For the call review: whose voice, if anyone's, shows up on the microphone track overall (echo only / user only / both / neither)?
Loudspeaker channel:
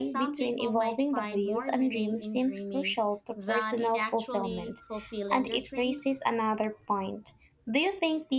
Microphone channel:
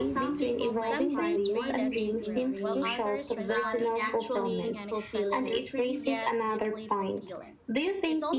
both